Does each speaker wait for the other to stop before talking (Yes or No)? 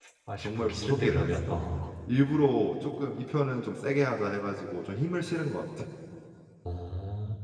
No